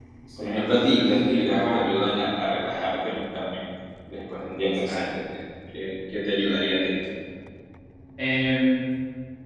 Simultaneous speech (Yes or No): Yes